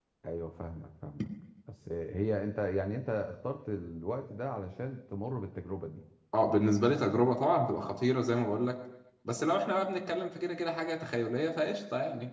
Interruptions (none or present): none